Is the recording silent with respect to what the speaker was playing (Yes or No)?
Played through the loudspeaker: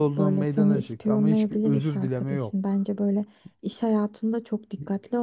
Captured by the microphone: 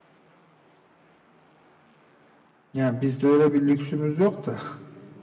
Yes